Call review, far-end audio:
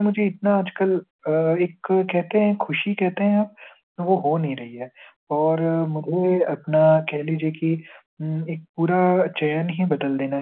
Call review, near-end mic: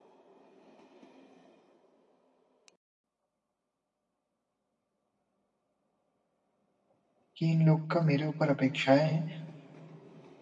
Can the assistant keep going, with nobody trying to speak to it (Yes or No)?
No